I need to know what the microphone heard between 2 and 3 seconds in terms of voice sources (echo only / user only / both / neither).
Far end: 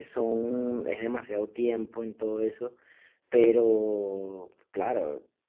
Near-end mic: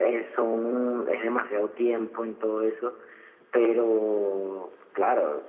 echo only